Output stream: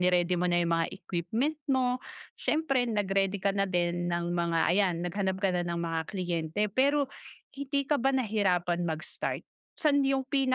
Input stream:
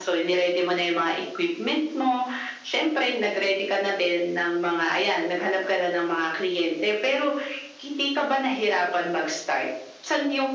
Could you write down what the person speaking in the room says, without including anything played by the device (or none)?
none